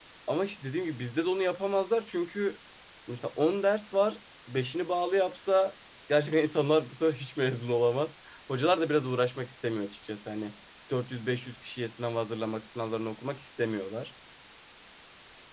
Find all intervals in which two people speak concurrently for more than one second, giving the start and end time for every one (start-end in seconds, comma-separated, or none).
none